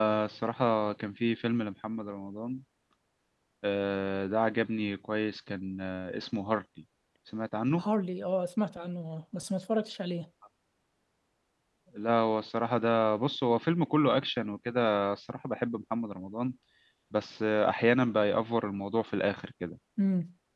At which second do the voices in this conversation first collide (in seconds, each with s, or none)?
none